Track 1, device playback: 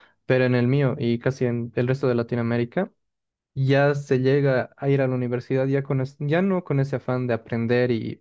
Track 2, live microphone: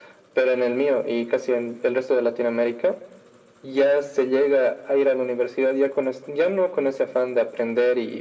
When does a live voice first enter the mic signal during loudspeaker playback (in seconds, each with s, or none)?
none